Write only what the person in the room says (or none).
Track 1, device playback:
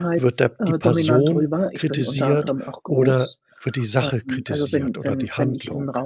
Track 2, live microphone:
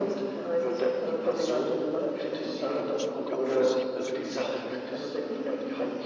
da muss man ja auch für sich persönlich trennen,